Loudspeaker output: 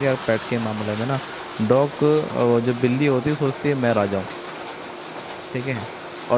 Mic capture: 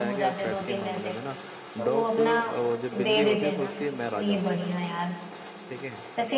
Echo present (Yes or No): Yes